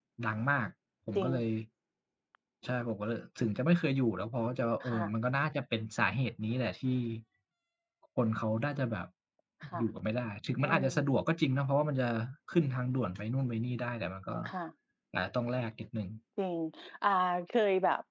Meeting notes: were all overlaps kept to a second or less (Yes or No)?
Yes